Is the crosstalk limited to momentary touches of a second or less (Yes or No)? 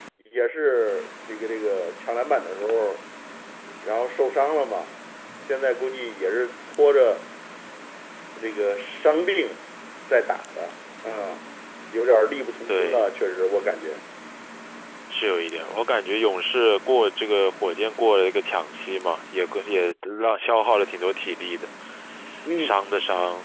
Yes